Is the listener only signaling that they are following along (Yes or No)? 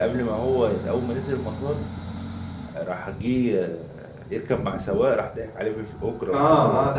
No